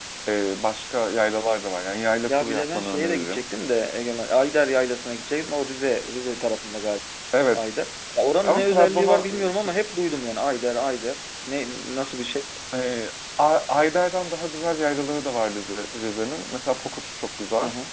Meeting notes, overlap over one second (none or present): present